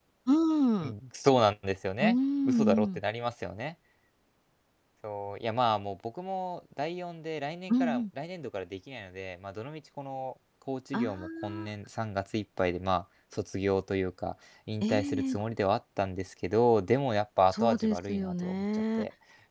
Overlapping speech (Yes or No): Yes